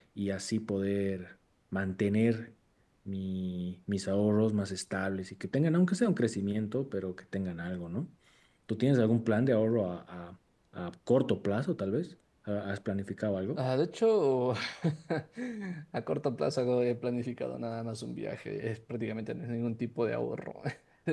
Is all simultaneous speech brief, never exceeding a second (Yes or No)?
Yes